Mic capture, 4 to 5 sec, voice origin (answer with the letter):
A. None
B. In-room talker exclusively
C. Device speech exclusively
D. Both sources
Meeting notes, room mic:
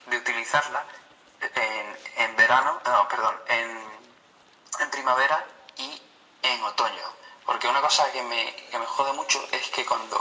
C